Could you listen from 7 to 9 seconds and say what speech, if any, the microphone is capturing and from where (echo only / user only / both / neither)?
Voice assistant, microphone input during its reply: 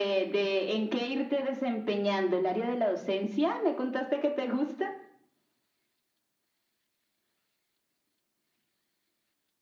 neither